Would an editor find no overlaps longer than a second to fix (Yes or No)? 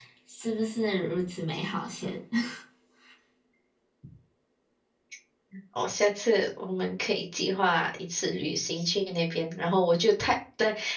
Yes